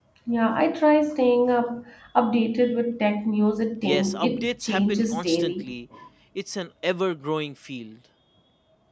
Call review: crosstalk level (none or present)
present